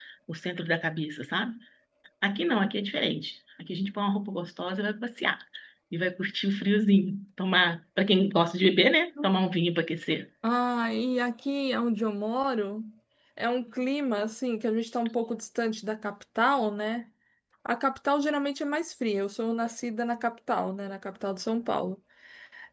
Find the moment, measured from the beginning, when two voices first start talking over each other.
none

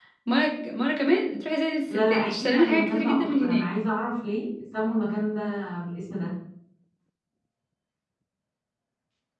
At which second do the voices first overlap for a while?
2 s

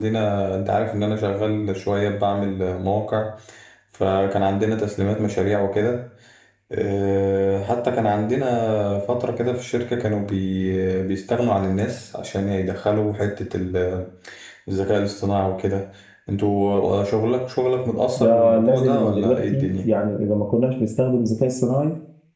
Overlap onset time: 18 s

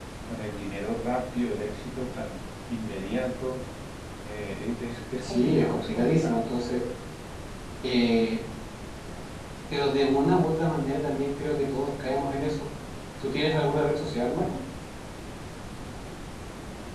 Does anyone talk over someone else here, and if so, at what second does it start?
5 s

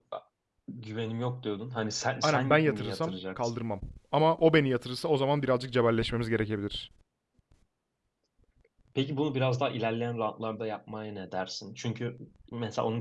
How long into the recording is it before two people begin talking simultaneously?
2 s

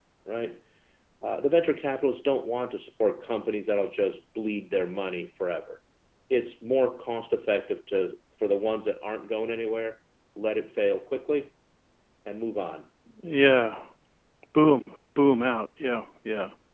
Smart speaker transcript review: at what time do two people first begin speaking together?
none

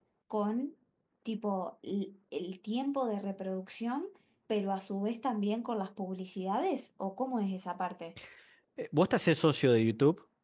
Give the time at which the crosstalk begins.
none

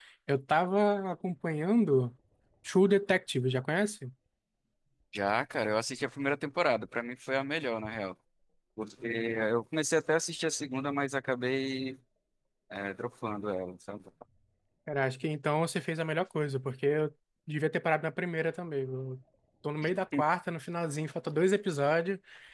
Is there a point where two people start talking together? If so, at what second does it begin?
none

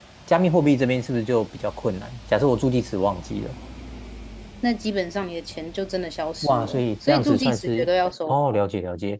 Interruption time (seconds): 6 s

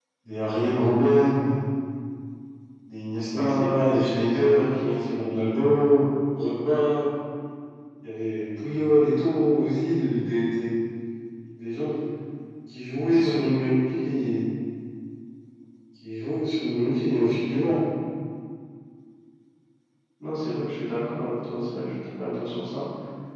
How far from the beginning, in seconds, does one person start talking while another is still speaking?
3 s

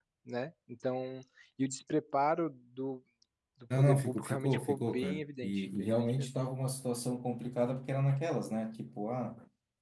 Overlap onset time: 4 s

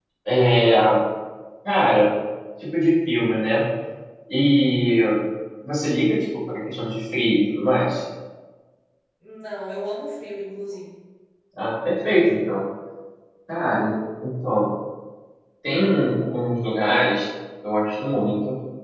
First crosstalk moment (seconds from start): none

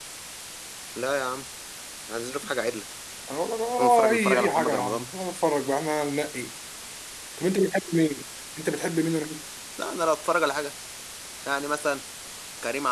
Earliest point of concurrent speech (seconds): 4 s

